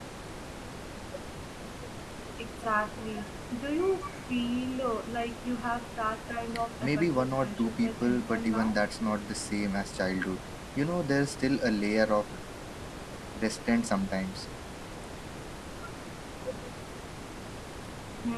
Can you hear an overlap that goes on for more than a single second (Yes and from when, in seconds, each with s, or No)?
Yes, from 6.8 s